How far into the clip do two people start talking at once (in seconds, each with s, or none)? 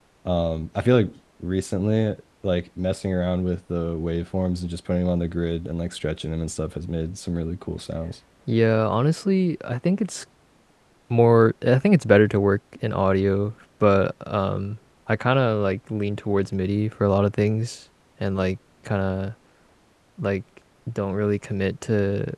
none